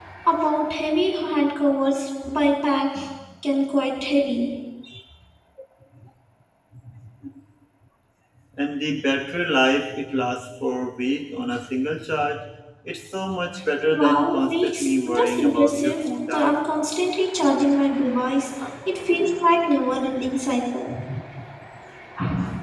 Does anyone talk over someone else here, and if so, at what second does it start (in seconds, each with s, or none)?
13.9 s